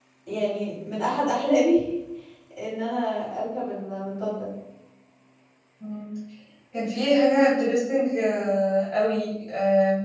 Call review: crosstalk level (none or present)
none